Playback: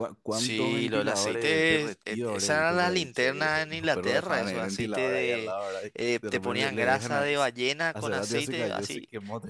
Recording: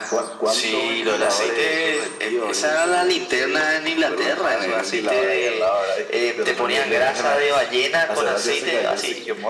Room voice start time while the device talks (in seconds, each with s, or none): none